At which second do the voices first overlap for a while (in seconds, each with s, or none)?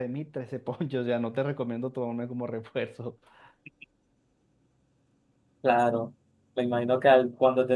none